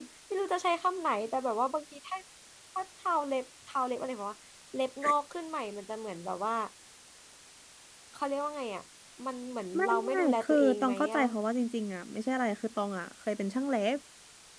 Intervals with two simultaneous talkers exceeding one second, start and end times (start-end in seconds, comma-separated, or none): 9.8-11.2